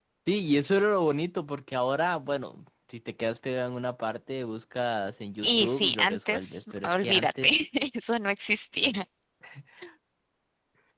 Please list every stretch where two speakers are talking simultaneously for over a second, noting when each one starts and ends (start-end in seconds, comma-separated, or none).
5.4-7.5